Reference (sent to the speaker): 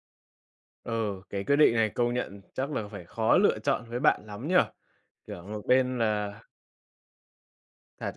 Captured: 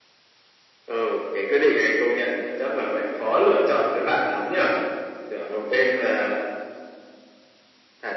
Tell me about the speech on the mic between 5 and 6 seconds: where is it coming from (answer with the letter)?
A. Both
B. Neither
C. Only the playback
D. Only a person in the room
C